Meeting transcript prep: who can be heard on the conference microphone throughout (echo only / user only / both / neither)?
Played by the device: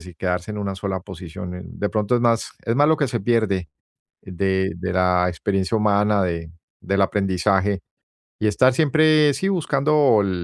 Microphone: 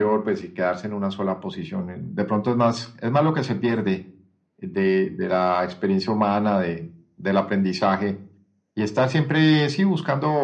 echo only